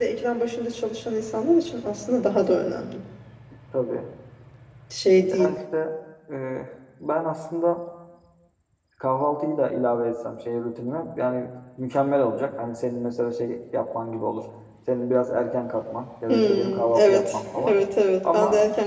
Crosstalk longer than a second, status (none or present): present